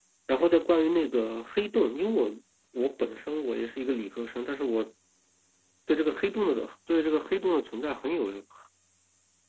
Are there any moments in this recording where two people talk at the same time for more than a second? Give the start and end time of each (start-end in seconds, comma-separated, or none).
none